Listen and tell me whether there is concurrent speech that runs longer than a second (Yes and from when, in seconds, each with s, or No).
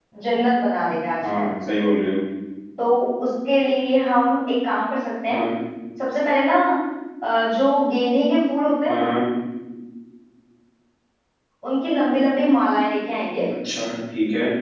No